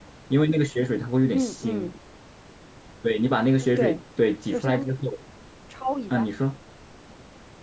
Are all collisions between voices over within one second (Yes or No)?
Yes